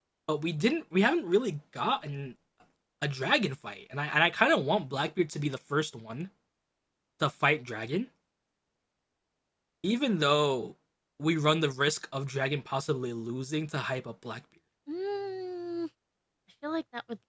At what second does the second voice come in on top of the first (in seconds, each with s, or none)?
none